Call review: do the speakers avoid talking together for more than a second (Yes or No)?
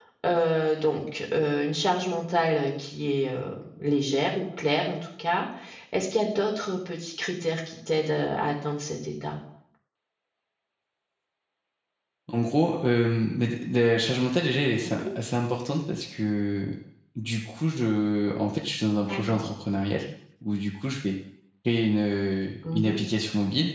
Yes